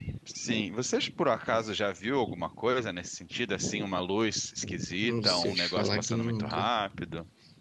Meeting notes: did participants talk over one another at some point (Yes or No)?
Yes